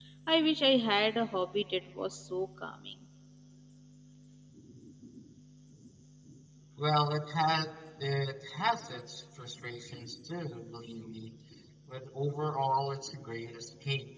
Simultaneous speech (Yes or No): No